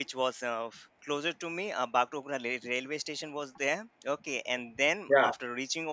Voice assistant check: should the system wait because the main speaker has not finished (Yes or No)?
Yes